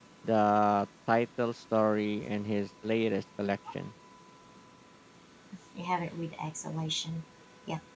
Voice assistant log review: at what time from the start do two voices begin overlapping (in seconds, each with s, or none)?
none